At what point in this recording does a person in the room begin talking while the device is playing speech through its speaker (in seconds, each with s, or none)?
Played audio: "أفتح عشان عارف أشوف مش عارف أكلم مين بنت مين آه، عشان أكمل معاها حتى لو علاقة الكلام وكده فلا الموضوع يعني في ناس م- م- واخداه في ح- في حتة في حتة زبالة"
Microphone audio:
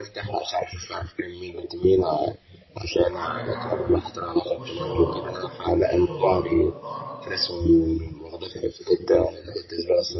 3.1 s